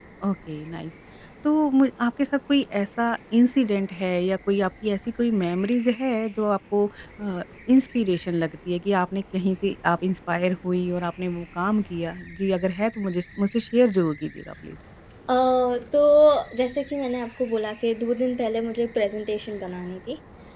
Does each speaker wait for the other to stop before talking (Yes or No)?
Yes